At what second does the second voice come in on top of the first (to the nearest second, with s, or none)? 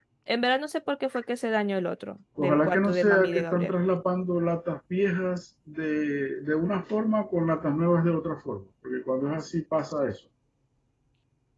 2 s